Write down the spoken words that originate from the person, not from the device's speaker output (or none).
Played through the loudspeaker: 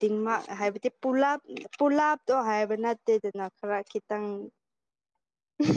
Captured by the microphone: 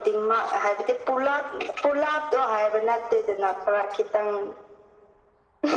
none